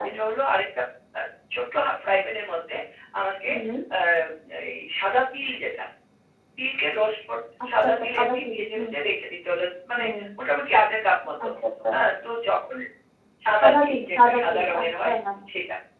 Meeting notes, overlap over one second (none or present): present